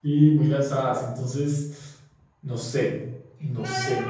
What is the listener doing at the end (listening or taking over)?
taking over